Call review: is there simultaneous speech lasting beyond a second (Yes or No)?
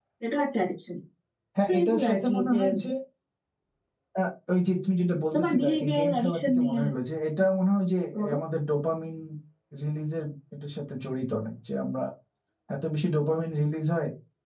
Yes